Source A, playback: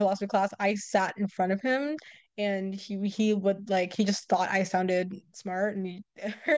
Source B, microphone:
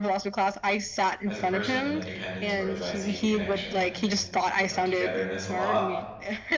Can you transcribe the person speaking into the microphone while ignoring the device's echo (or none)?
as a person and independence, whereas I seek connection and, and you know, togetherness a lot.